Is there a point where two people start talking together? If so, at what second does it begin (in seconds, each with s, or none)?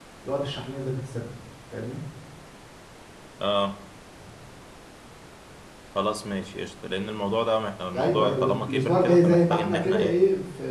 7.9 s